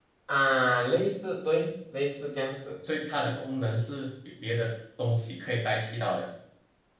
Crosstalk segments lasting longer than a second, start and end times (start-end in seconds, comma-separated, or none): none